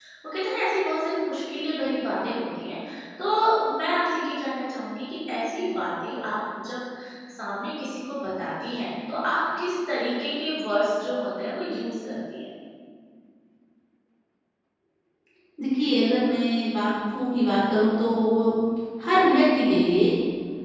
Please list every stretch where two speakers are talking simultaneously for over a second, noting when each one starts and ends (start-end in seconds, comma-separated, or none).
none